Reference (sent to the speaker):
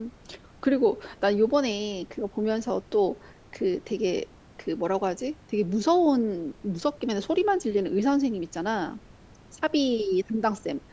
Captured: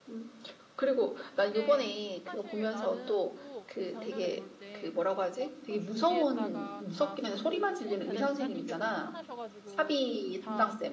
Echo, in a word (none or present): present